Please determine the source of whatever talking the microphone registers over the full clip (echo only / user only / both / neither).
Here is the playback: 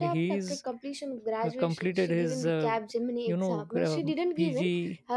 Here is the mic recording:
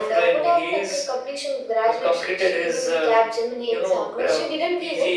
echo only